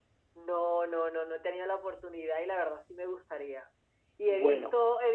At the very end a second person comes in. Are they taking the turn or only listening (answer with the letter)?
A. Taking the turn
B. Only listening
B